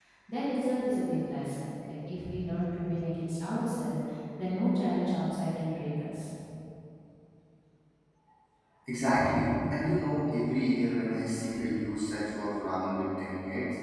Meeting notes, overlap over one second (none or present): none